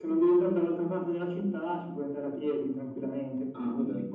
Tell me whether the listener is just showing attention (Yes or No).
Yes